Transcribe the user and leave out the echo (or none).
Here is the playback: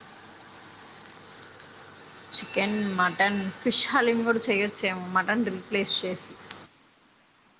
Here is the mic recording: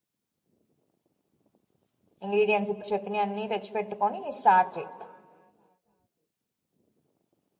ఇంగ్రీడియంట్స్ చెప్పిన అన్ని తెచ్చిపెట్టు అని స్టార్ట్ చెయ్